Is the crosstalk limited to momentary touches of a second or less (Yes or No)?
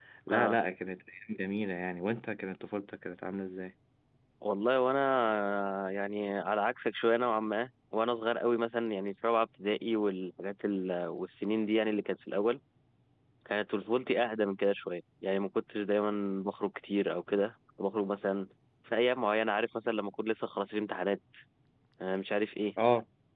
Yes